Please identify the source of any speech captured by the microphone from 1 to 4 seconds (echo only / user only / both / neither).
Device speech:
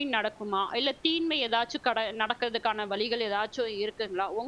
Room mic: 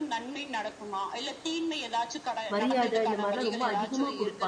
both